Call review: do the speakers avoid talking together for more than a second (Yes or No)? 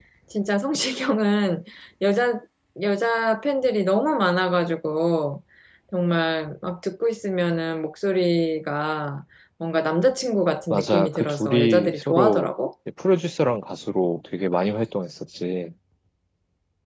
No